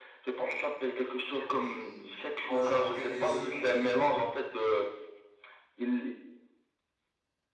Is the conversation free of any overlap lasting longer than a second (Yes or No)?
No